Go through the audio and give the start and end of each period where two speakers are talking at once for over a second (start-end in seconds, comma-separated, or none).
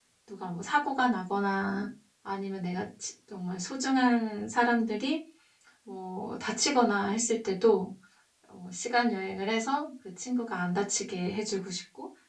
none